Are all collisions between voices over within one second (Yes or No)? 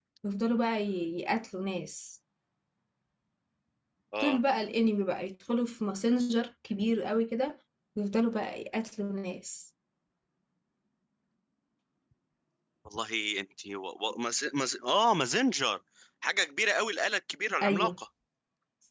Yes